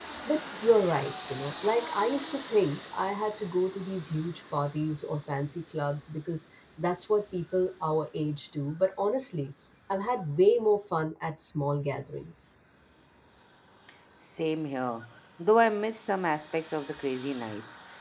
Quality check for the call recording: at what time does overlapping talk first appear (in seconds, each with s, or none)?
none